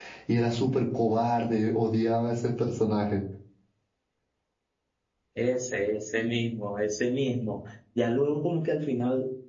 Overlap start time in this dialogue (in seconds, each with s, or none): none